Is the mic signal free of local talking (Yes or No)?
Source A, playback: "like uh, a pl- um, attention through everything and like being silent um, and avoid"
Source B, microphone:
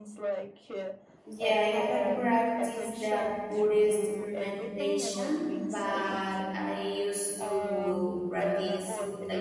No